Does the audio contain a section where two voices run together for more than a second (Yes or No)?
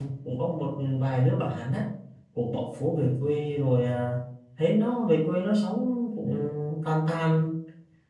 No